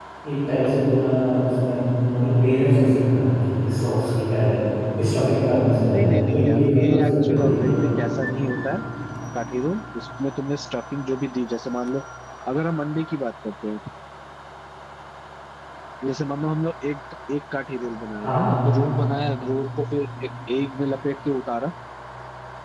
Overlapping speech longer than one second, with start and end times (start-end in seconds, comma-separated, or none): 5.9-7.8